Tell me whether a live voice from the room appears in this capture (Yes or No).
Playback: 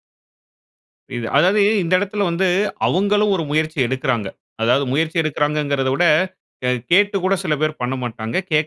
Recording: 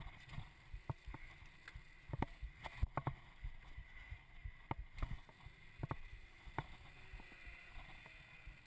No